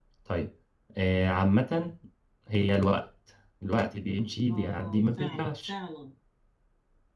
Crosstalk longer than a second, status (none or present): present